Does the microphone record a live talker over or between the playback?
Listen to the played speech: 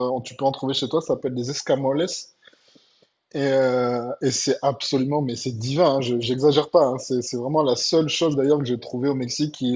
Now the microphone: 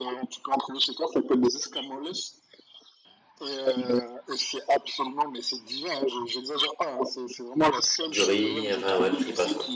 Yes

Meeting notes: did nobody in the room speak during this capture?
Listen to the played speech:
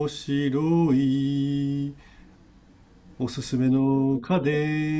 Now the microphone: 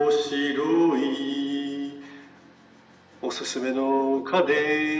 Yes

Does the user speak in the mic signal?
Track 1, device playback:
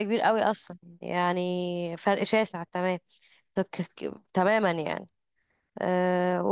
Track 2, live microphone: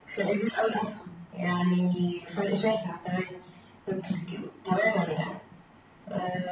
No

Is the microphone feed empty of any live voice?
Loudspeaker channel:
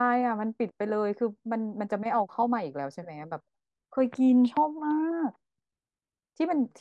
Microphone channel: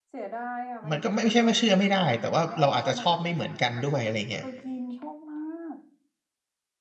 No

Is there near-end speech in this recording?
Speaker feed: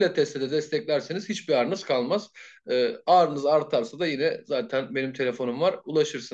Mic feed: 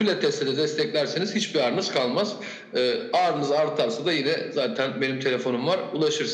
No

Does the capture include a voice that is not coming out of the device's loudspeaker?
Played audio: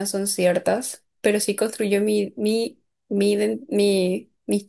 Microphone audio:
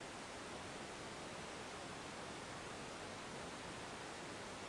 No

